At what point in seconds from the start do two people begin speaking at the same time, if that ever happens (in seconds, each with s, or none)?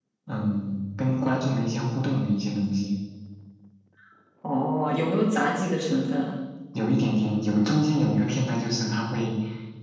none